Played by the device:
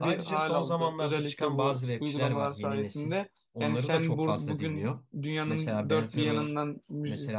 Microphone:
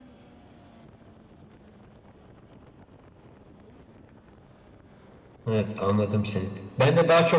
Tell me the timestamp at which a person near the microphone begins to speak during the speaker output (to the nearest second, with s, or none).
5 s